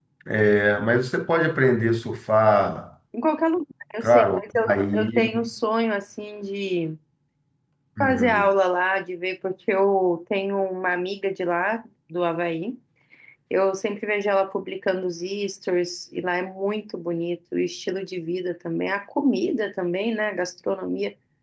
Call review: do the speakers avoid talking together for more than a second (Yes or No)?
No